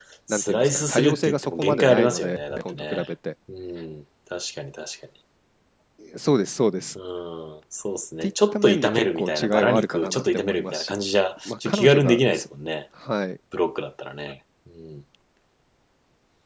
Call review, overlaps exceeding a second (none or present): present